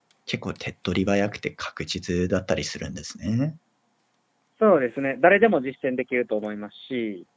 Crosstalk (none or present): none